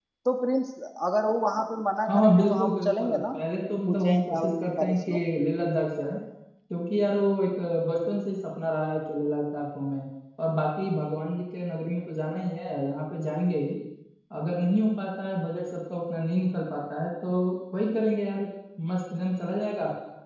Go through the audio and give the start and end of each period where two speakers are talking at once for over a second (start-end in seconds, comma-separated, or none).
2.0-3.4, 3.9-5.2